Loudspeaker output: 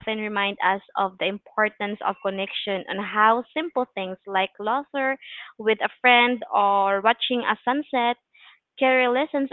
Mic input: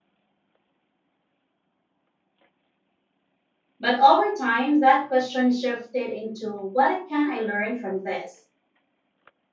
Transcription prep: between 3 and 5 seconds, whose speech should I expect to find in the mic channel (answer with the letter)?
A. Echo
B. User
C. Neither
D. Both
B